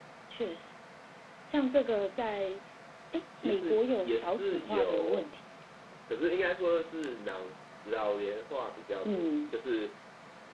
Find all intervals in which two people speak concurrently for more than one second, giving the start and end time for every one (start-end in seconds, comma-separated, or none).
3.4-5.3